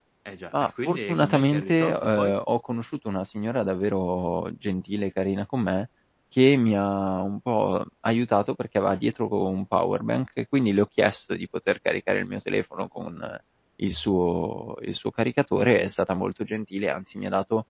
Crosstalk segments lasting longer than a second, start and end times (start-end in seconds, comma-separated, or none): 0.5-2.4